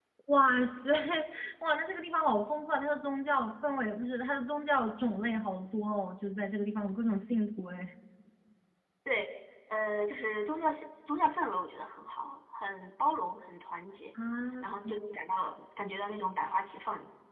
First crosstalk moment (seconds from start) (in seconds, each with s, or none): none